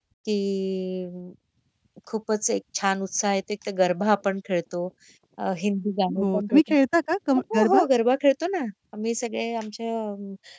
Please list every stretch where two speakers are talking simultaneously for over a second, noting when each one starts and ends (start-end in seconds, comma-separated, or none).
none